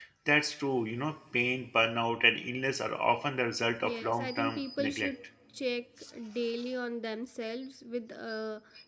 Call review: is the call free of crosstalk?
No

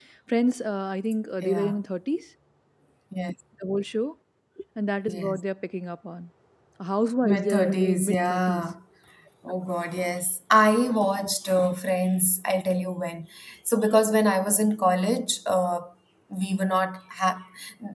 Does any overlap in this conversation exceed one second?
Yes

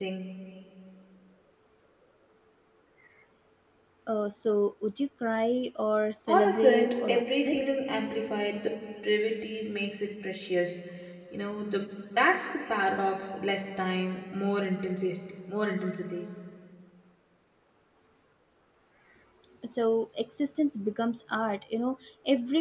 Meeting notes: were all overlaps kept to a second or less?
No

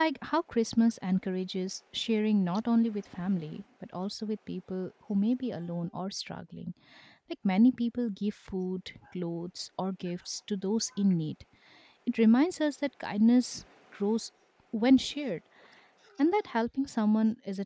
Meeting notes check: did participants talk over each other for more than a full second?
No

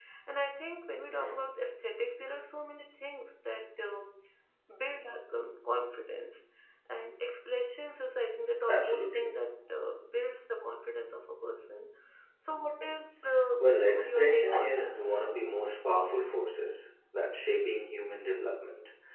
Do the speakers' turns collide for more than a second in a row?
Yes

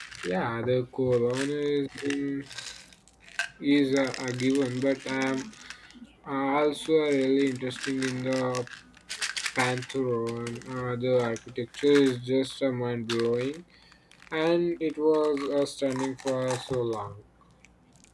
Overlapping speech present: No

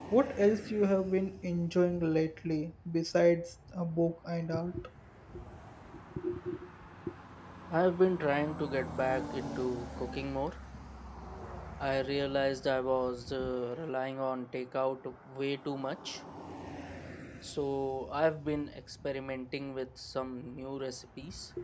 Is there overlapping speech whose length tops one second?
No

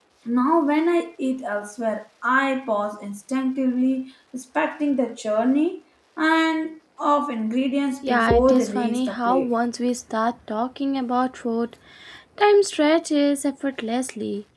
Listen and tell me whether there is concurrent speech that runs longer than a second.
Yes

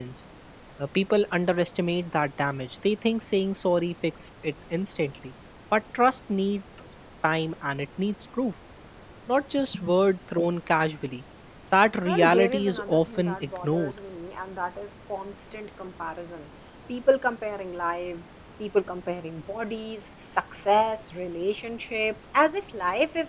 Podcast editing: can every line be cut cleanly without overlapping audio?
No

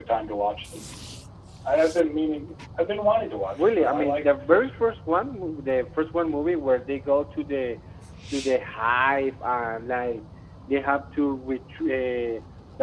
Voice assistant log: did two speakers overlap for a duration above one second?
Yes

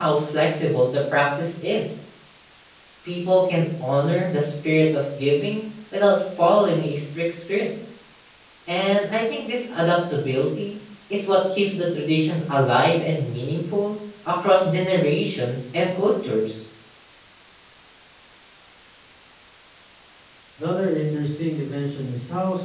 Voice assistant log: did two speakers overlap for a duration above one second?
No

